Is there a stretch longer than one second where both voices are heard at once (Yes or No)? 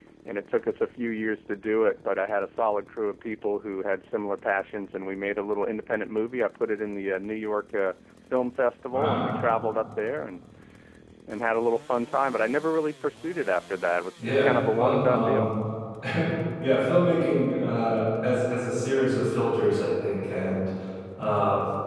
Yes